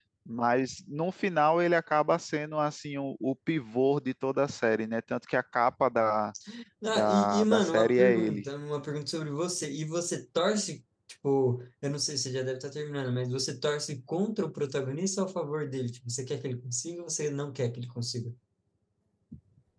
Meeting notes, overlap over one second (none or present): present